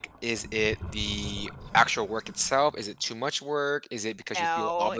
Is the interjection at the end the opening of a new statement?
No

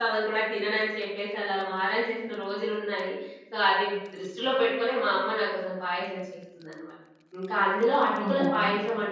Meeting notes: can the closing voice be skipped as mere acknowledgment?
Yes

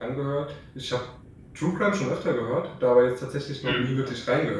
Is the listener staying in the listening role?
Yes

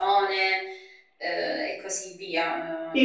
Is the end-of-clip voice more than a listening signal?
Yes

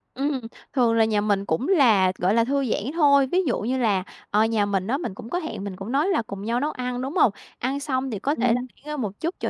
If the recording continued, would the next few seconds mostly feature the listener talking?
No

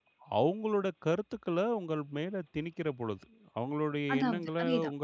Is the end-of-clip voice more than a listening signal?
No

